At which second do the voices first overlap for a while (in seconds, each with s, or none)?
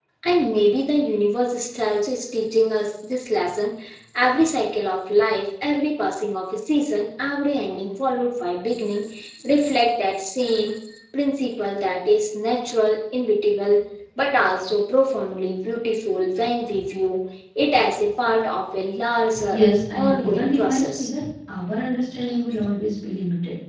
19.5 s